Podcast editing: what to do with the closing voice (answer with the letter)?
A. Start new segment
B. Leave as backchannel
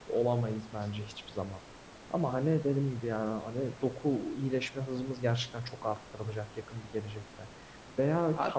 B